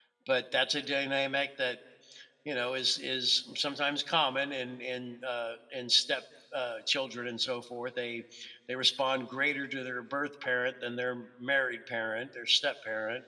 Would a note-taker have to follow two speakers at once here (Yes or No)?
No